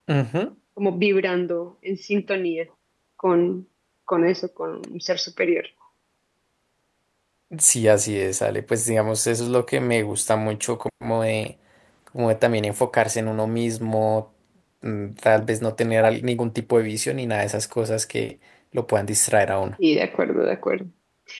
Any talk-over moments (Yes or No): No